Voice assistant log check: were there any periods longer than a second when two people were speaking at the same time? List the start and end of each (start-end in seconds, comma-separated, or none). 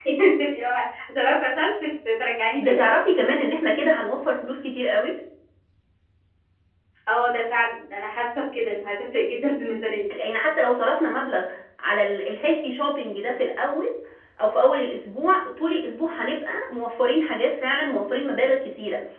none